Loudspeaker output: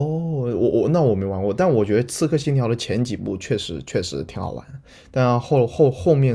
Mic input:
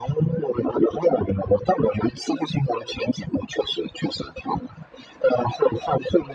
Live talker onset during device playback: none

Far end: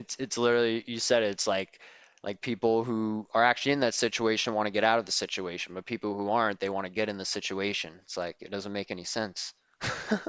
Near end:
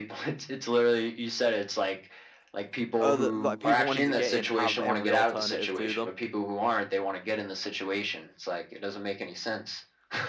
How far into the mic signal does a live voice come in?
3 s

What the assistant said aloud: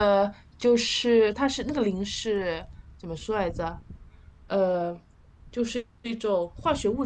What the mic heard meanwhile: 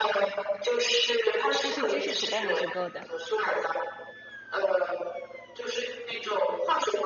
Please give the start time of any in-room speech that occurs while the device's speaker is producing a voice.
2 s

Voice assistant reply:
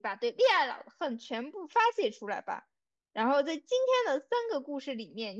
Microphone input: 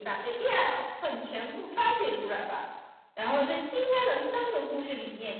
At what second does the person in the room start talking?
none

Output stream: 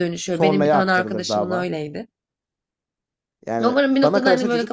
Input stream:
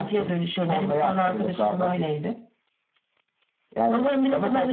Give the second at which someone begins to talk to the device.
none

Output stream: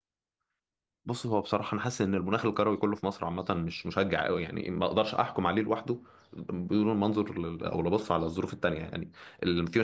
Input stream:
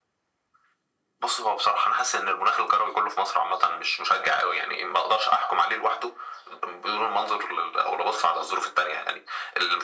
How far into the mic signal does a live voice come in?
none

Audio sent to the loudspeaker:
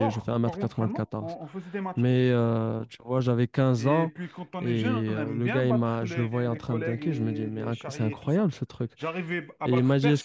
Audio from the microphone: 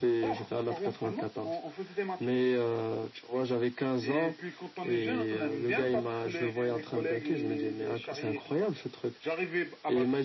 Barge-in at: none

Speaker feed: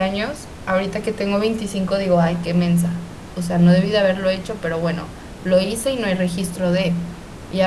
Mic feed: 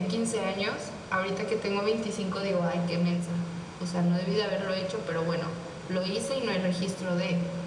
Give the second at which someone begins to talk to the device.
none

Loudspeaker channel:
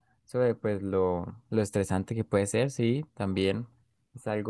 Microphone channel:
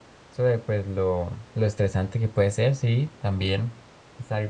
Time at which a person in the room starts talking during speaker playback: none

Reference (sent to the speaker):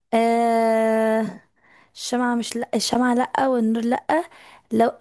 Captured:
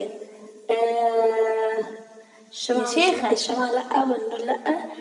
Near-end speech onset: 3 s

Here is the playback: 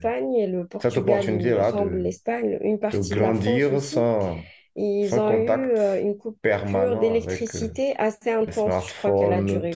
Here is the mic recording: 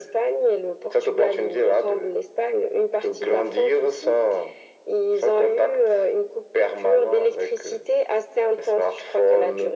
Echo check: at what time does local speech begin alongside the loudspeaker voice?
none

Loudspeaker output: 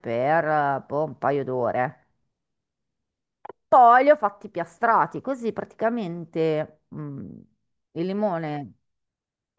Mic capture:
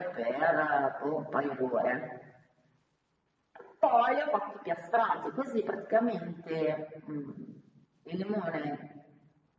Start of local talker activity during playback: none

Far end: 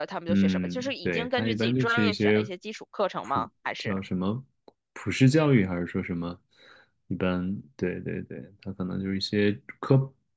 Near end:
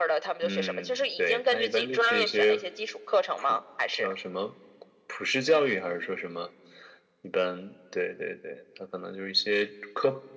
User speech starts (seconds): none

